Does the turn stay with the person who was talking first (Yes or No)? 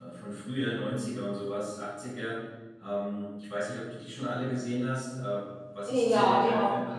No